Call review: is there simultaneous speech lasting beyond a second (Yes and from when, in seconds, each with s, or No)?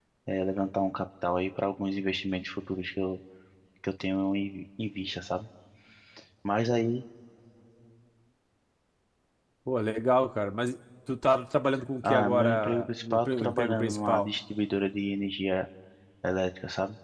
Yes, from 12.0 s